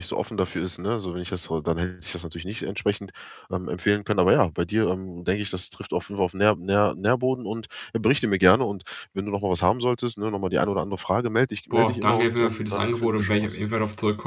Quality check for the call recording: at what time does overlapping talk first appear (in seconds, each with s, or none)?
11.7 s